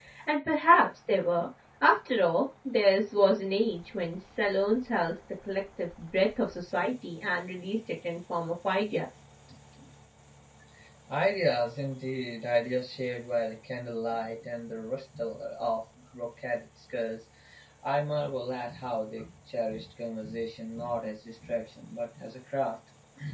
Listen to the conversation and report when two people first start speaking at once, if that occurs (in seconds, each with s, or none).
none